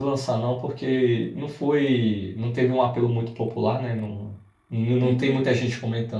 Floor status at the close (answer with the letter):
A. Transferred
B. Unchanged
B